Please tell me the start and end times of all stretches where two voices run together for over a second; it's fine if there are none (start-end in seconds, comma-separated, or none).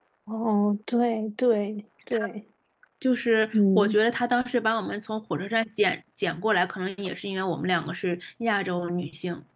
none